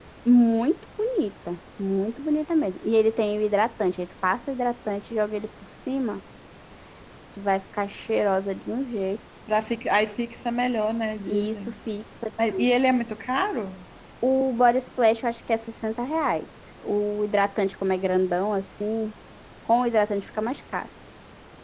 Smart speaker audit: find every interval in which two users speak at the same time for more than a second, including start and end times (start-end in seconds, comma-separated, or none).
none